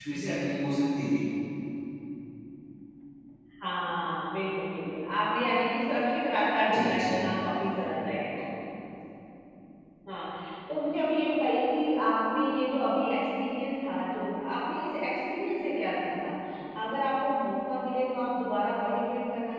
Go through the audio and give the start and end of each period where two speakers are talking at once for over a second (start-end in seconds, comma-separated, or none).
none